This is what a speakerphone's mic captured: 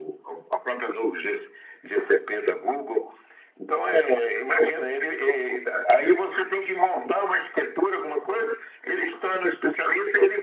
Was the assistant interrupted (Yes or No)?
No